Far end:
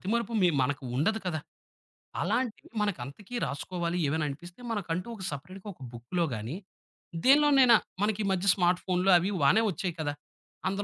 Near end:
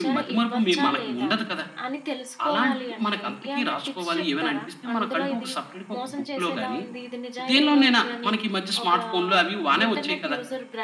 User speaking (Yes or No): Yes